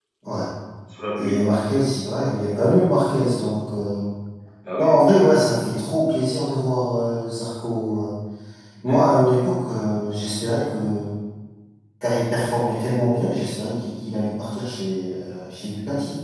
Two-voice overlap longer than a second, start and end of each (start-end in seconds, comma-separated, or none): none